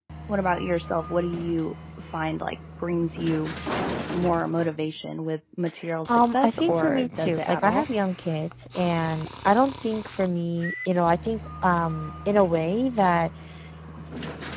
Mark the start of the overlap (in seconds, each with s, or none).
6.1 s